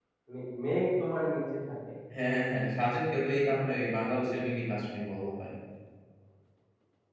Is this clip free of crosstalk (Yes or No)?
Yes